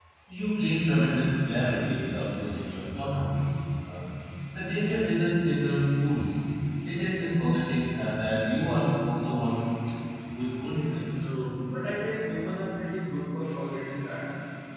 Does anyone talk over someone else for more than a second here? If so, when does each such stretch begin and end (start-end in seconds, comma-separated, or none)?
none